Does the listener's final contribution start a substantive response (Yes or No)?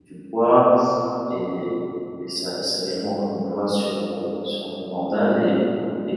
No